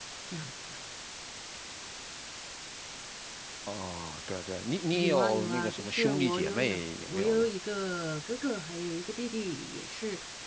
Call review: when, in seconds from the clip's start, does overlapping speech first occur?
4.9 s

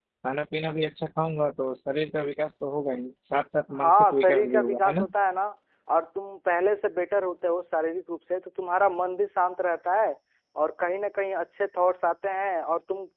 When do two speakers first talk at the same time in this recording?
3.7 s

